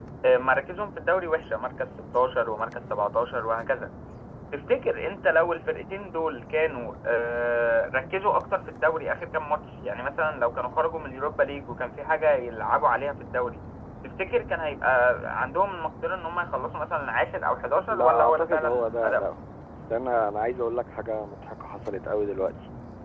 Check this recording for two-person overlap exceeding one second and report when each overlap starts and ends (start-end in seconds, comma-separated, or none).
17.9-19.4